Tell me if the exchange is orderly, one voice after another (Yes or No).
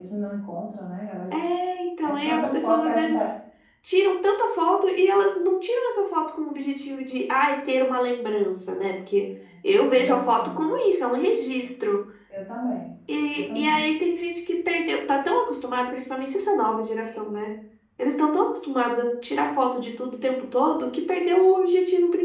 No